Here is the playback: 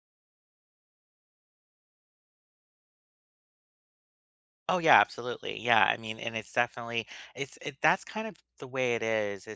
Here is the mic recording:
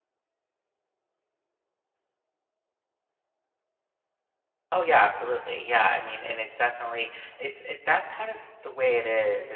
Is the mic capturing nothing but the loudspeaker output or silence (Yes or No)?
Yes